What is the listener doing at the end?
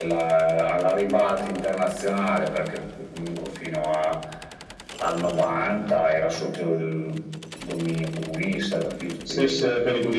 taking over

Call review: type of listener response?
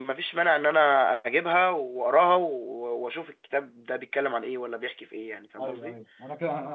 taking over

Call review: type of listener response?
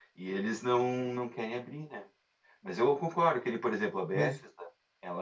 listening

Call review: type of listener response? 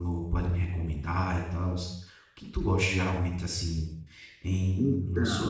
listening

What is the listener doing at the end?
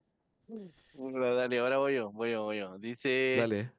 listening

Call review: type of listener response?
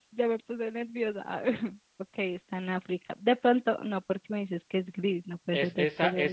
taking over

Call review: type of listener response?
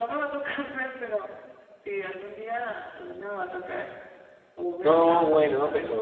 taking over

